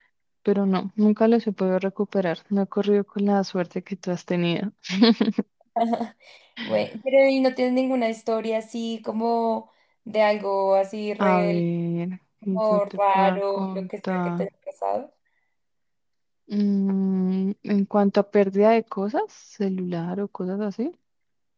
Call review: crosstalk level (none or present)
present